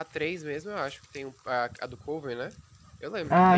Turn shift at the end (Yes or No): No